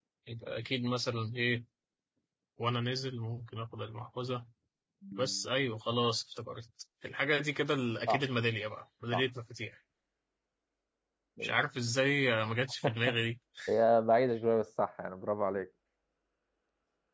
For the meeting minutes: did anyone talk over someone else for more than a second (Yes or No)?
No